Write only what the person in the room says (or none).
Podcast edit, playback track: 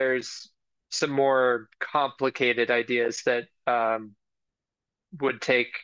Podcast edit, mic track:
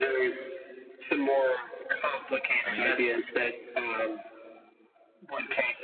I mean, that's